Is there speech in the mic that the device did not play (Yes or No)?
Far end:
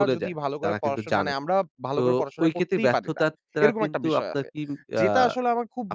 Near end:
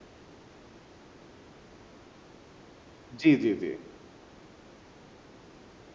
Yes